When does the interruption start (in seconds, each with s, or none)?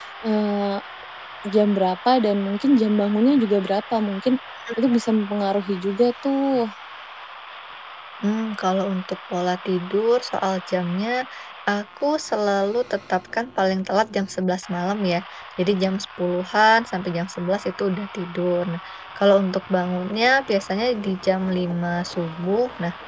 none